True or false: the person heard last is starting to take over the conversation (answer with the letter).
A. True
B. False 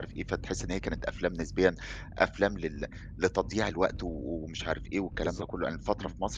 B